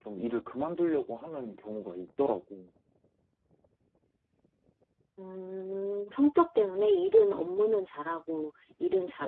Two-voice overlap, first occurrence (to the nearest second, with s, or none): none